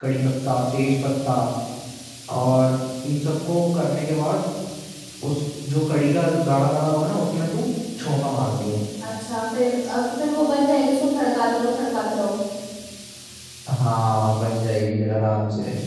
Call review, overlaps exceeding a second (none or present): none